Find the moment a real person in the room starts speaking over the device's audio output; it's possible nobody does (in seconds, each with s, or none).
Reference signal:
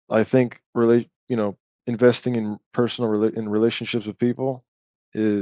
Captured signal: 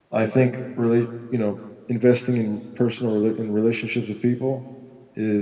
none